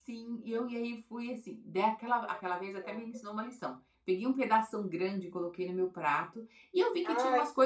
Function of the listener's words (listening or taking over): listening